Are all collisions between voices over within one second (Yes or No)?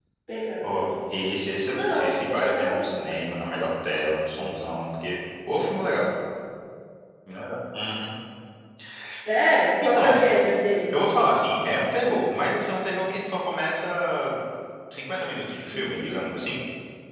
No